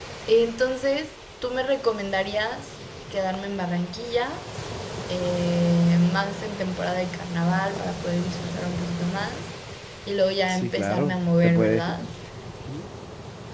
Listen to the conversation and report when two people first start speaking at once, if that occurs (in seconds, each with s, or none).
10.5 s